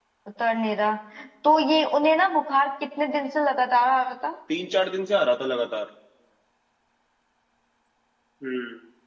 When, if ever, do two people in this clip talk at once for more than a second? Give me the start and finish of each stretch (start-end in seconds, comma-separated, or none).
none